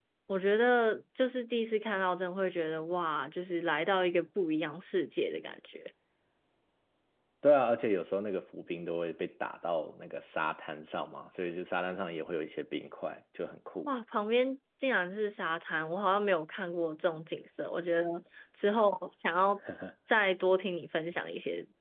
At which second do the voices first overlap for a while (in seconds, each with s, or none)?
none